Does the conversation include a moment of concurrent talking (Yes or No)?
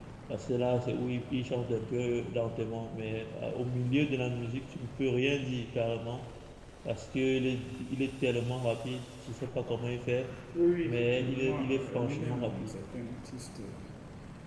Yes